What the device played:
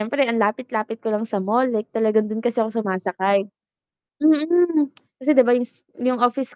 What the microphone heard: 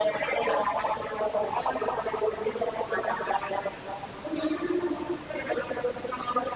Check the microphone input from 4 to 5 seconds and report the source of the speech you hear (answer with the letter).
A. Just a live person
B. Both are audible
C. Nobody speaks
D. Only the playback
D